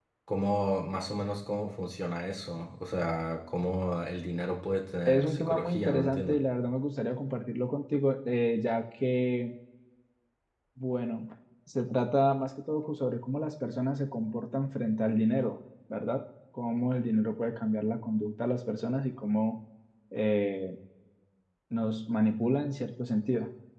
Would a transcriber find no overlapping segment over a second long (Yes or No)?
No